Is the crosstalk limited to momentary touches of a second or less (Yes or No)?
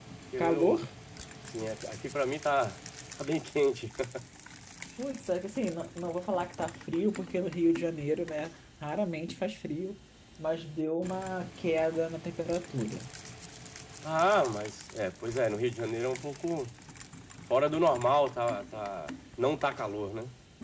Yes